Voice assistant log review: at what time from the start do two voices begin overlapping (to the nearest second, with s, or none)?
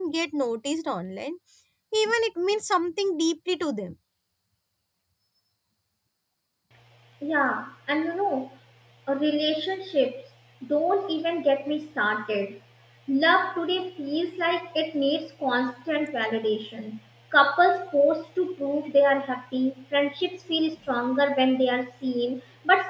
none